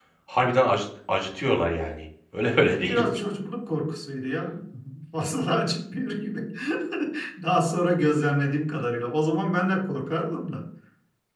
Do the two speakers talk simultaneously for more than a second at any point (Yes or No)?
No